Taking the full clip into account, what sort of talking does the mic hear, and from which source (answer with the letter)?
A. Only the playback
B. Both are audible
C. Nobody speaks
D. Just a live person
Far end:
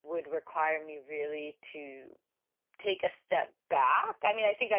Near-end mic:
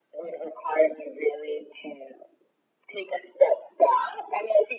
A